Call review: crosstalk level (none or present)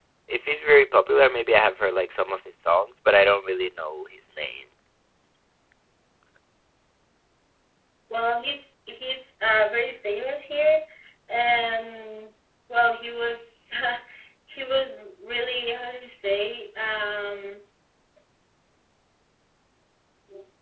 none